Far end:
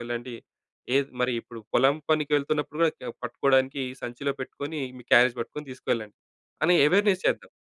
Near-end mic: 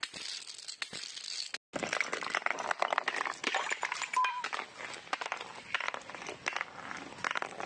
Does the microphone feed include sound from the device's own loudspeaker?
No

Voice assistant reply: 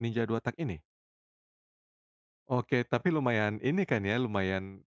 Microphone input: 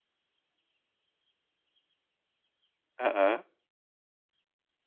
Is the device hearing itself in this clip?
No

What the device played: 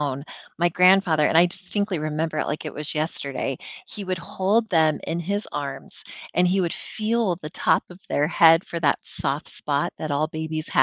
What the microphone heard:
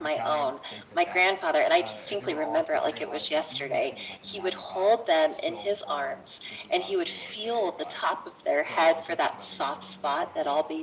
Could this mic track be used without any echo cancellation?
No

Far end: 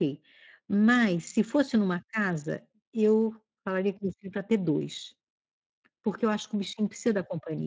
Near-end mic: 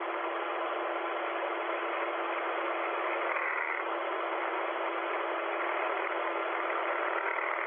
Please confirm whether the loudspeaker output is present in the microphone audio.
No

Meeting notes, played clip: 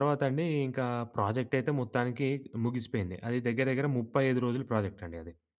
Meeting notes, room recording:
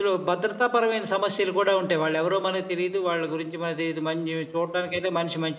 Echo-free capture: Yes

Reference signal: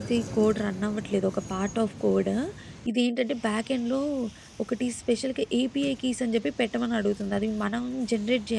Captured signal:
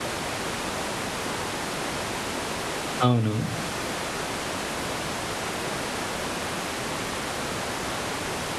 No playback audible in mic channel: Yes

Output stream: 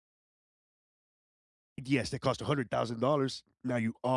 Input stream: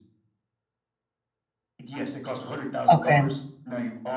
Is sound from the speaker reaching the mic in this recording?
Yes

